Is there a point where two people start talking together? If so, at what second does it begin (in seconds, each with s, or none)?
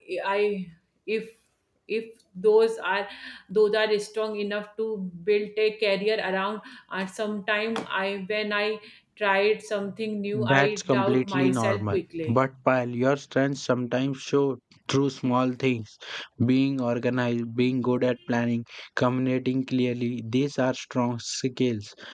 10.3 s